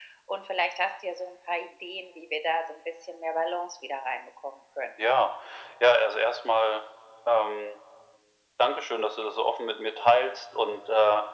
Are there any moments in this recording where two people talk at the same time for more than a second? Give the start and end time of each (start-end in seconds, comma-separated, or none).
none